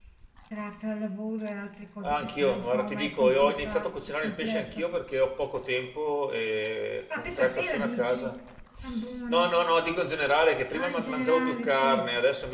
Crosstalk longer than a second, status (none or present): present